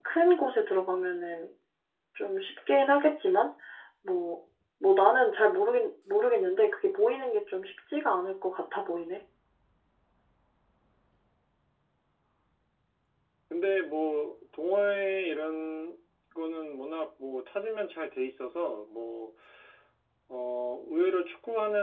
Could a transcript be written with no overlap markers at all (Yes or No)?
Yes